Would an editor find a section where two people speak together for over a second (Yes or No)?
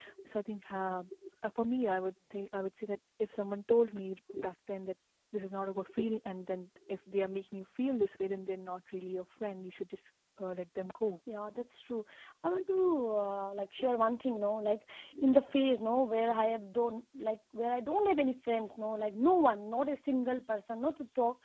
No